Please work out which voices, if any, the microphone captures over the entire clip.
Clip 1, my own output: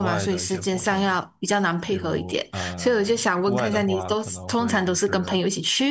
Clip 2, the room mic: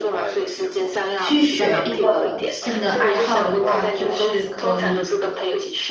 both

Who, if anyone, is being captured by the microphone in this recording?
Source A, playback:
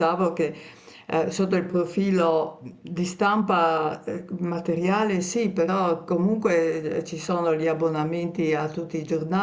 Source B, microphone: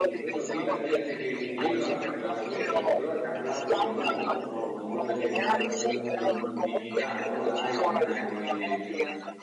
both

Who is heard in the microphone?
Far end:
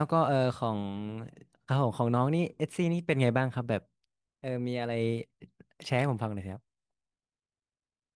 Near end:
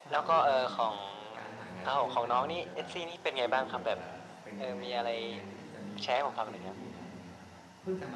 both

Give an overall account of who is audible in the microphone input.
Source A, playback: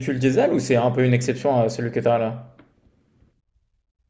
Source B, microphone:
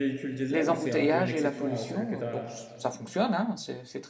both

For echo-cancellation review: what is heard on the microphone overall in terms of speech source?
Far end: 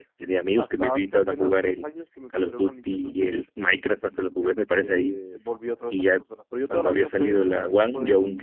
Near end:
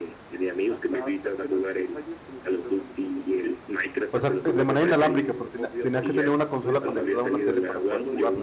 both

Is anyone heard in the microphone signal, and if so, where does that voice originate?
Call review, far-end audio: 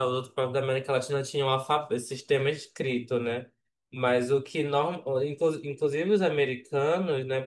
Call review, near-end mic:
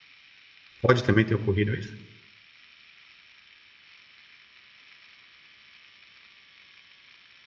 user only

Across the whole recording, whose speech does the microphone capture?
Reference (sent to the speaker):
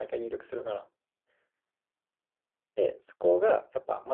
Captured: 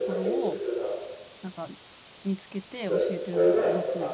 both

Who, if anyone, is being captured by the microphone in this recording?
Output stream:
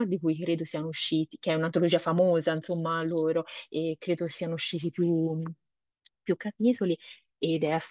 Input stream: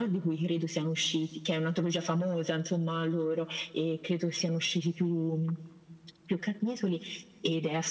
echo only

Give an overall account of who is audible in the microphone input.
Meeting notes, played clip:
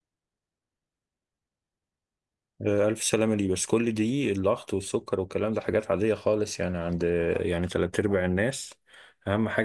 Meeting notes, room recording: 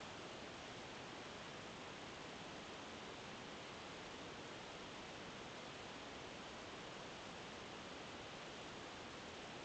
neither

